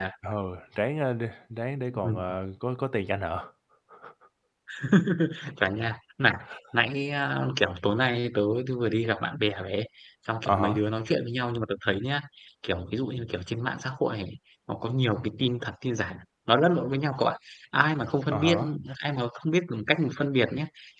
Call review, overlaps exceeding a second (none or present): none